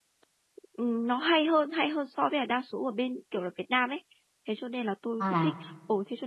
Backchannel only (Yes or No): Yes